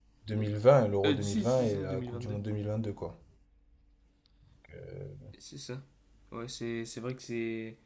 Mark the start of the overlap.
1.1 s

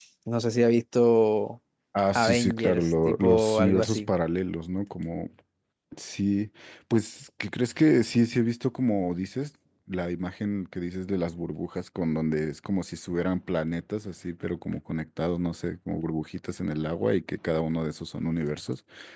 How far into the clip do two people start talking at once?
2.1 s

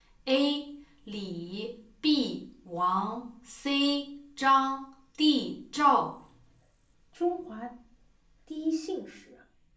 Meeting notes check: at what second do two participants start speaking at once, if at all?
none

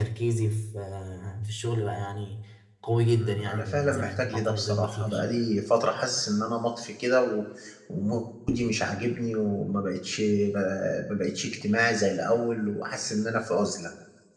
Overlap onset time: 3.0 s

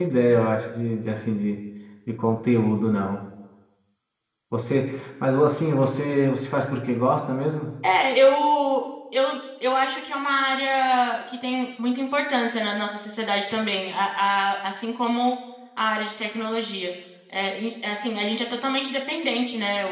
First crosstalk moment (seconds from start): none

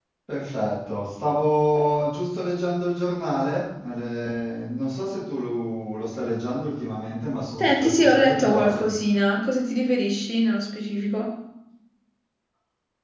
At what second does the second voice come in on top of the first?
7.6 s

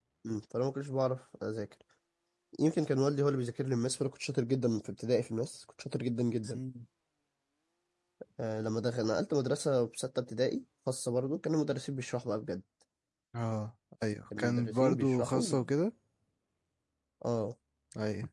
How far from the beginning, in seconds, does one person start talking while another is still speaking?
14.3 s

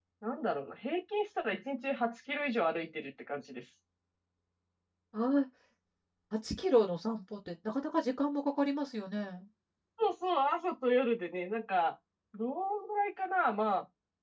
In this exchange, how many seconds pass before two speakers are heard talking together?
none

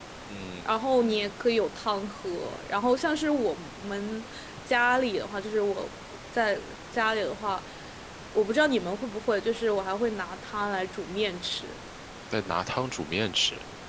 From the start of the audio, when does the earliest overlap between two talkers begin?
none

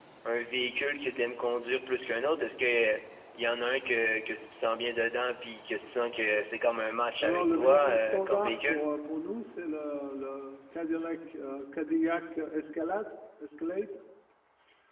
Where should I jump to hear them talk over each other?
7.2 s

